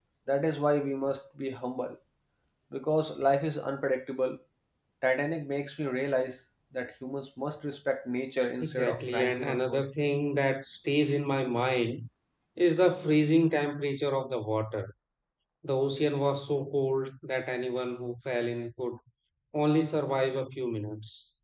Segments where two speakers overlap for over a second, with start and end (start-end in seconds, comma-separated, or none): 8.6-9.9